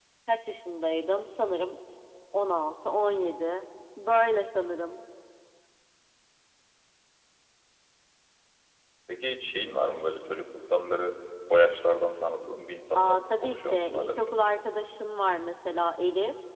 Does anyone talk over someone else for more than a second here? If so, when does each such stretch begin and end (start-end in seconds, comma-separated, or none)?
12.9-14.4